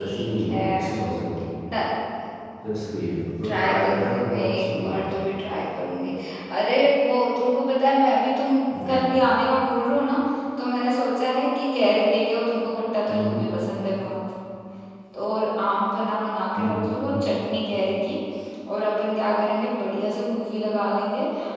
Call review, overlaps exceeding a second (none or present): present